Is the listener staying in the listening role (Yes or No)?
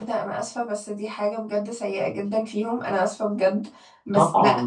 Yes